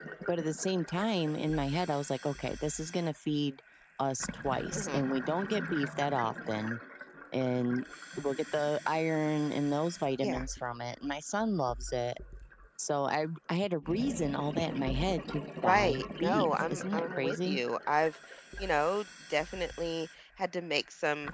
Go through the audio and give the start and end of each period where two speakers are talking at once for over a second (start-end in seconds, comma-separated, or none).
15.6-17.6